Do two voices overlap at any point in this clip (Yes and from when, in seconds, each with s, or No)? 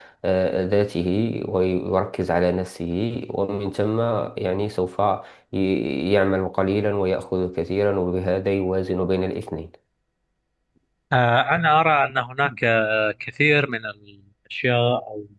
No